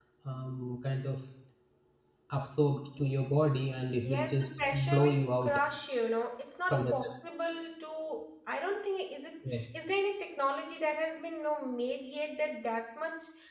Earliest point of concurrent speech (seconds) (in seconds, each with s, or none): 4.0 s